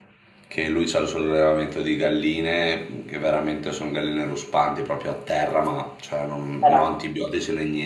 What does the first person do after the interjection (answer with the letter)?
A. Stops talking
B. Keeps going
B